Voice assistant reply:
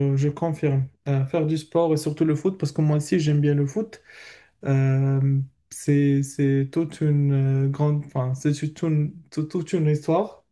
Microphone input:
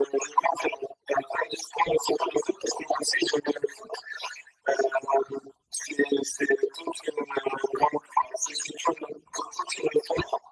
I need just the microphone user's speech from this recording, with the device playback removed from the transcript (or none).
none